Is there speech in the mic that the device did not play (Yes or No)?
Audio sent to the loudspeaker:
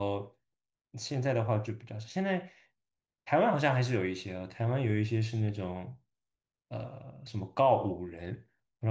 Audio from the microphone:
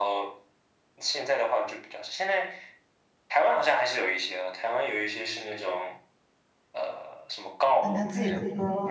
Yes